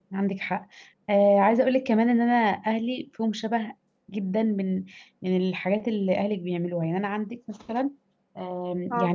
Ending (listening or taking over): listening